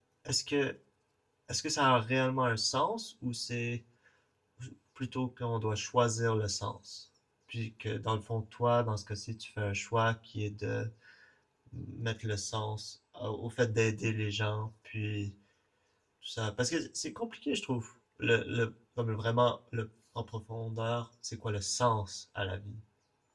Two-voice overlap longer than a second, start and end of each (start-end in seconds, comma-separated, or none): none